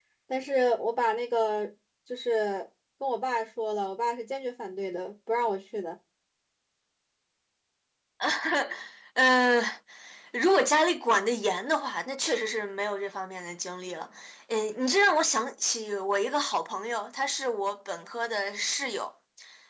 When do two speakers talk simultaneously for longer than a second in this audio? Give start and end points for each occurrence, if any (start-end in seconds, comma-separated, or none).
none